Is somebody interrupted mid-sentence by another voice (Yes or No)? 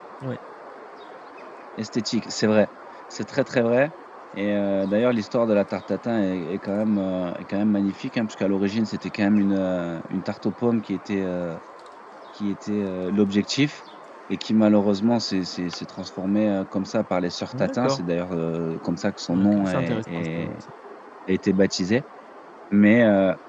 Yes